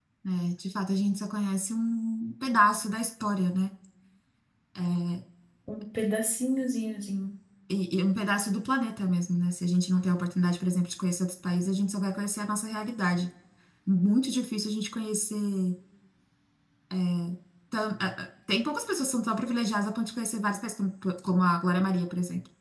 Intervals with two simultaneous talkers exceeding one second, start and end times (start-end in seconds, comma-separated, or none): none